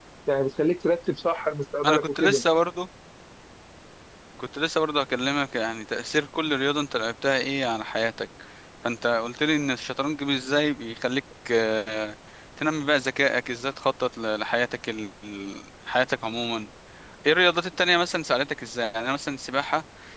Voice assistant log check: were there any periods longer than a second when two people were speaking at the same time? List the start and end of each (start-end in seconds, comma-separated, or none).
none